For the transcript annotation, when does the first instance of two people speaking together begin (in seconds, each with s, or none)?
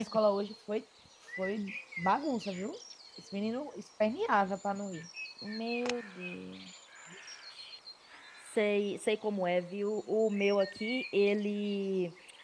none